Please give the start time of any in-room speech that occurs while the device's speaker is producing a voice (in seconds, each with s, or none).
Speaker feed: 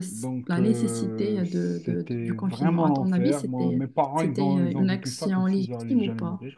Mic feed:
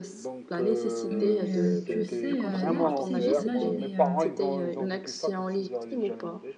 1.1 s